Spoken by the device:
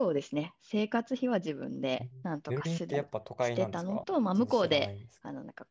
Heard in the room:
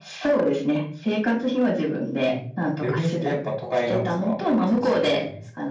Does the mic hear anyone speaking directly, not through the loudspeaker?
No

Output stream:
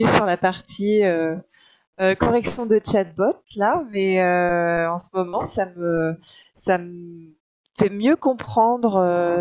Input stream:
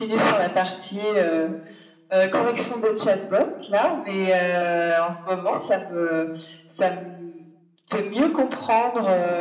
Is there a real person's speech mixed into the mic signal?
No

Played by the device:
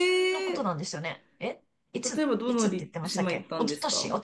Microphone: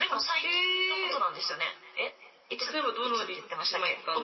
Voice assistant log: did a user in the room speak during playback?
No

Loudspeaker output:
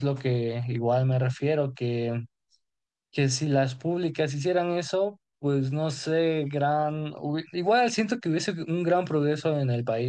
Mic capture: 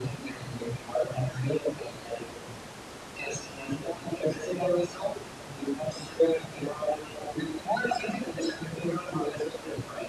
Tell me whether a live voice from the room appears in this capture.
No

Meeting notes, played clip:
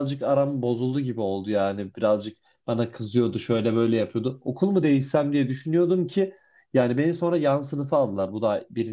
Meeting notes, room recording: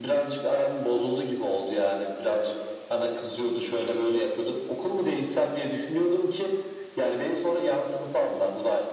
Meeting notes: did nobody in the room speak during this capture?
Yes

